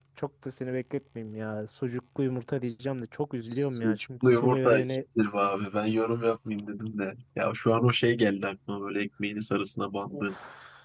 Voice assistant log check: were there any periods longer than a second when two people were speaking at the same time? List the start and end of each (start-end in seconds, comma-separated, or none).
3.4-5.0